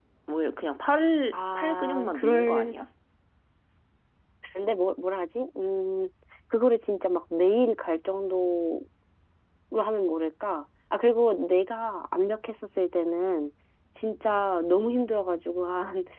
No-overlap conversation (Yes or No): No